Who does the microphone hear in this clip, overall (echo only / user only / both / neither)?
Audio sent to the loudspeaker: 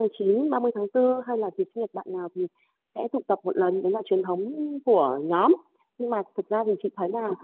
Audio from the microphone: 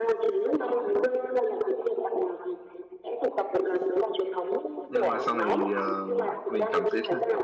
both